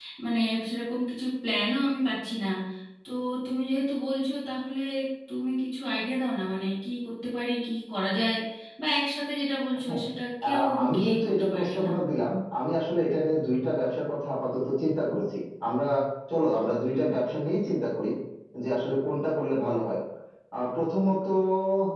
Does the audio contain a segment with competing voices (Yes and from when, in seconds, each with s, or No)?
Yes, from 10.5 s